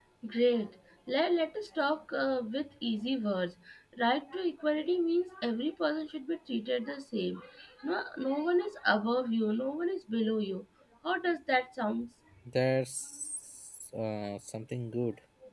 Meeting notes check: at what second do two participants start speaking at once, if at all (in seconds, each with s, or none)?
none